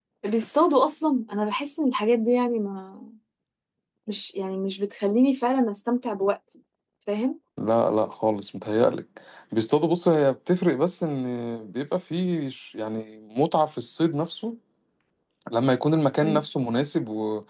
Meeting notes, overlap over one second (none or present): none